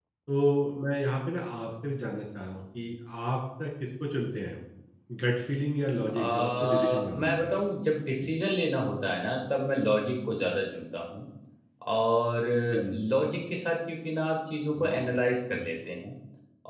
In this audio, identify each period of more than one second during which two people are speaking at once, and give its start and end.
6.2-7.6

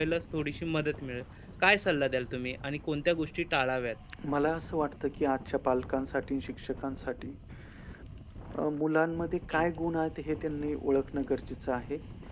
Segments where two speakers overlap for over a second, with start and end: none

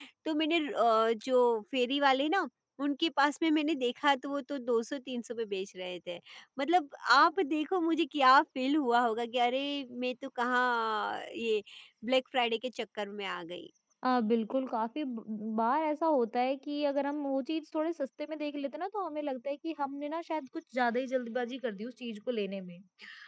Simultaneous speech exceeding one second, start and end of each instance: none

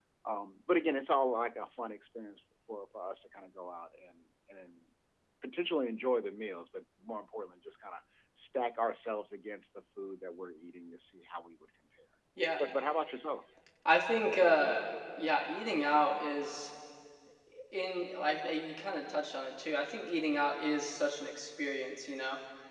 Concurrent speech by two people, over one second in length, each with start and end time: none

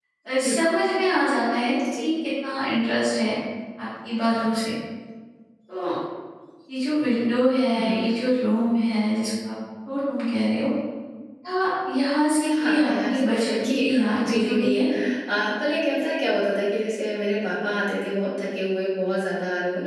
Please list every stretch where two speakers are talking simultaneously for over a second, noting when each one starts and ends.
12.6-14.9

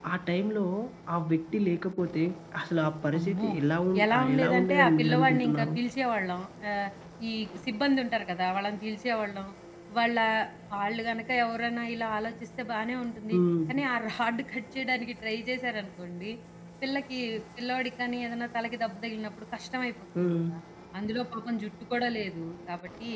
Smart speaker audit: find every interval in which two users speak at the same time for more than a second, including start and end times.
4.0-5.7

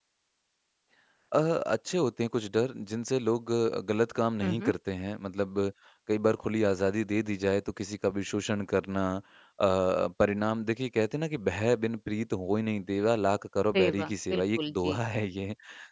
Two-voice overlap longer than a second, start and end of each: 13.8-15.0

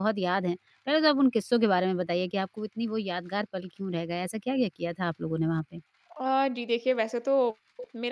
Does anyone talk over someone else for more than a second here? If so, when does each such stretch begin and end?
none

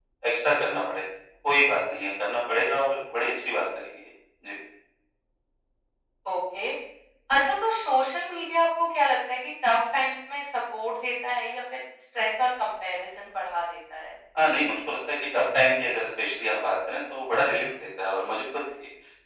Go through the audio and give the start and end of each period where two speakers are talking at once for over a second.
none

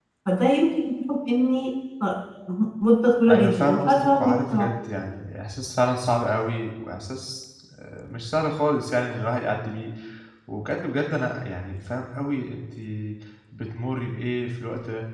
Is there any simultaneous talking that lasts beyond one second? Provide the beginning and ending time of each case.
3.3-4.7

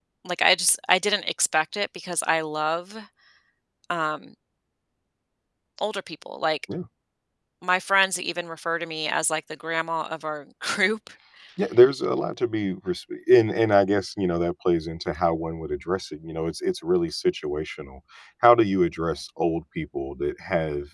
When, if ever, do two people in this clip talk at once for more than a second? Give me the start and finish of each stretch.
none

